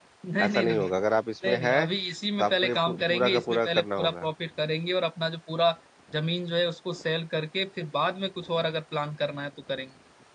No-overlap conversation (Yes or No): No